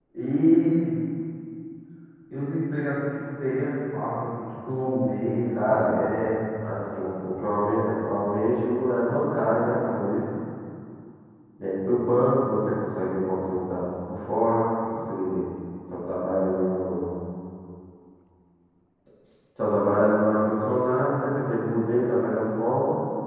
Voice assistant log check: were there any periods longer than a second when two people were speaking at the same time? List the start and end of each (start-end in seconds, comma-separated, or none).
none